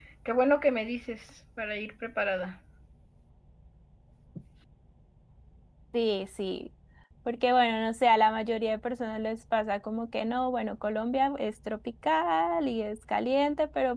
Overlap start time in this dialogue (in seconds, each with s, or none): none